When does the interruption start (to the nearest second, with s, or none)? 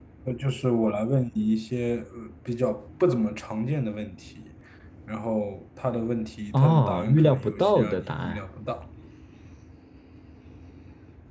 7 s